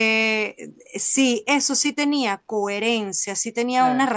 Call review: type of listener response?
listening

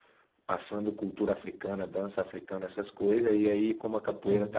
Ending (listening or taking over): listening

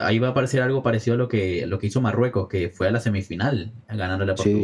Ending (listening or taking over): taking over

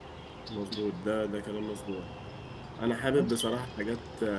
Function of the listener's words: listening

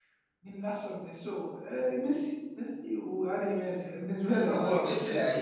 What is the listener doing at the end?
taking over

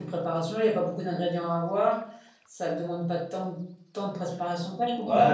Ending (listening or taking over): taking over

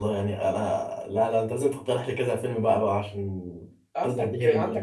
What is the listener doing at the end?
taking over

